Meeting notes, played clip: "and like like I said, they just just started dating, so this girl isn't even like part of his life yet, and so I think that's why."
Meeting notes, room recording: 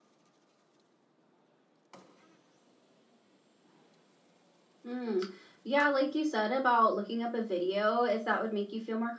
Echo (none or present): none